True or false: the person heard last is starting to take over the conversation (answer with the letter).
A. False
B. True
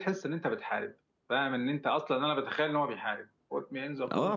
B